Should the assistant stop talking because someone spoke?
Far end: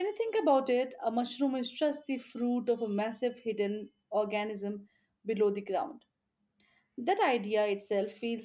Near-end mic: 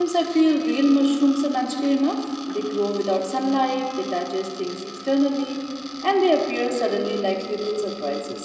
Yes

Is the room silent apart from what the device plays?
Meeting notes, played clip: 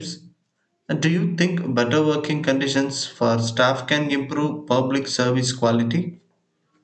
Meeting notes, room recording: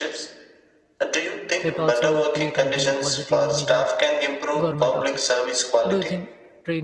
No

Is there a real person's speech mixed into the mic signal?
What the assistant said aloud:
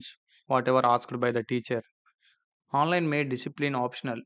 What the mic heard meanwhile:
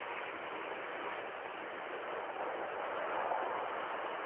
No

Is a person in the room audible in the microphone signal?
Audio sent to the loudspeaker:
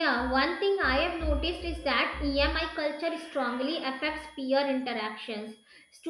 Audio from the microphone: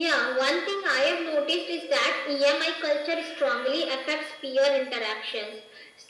No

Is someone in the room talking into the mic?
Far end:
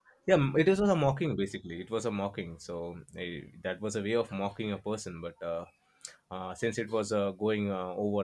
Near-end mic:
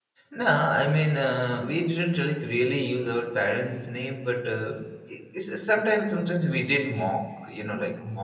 Yes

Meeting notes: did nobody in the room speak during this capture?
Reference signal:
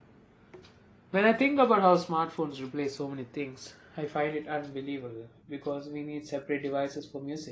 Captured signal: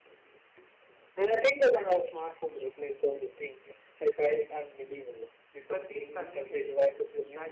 No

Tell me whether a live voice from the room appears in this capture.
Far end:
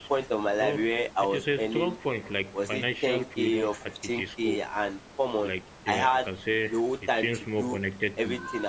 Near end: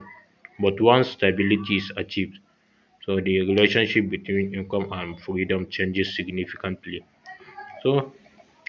Yes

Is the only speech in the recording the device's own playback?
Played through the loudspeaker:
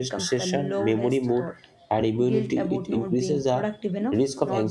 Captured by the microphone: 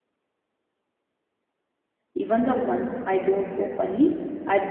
No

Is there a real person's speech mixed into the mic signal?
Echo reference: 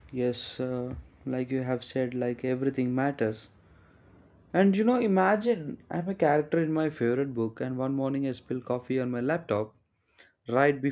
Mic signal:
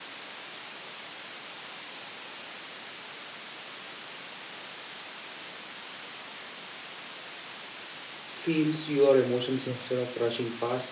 Yes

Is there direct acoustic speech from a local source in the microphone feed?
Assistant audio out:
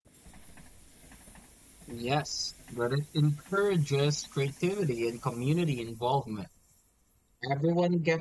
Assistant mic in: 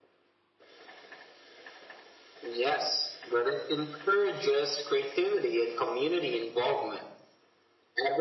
No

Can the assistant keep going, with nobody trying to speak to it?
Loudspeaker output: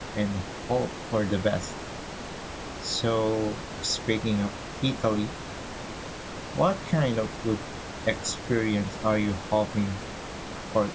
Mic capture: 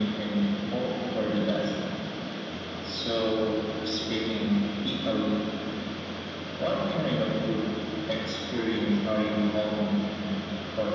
Yes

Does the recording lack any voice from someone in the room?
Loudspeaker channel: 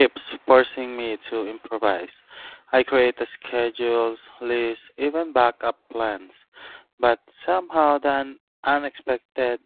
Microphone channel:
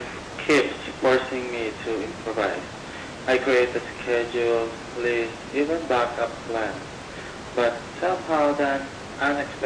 Yes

